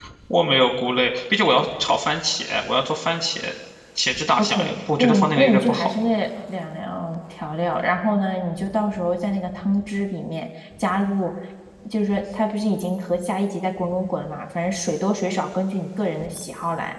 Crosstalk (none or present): present